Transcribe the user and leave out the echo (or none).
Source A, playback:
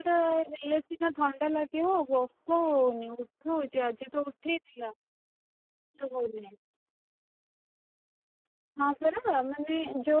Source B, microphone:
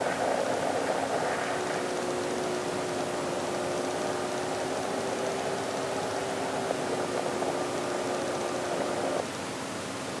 none